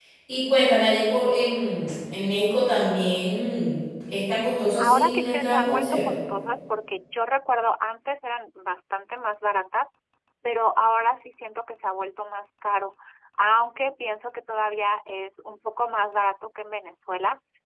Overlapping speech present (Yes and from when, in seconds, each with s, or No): Yes, from 4.8 s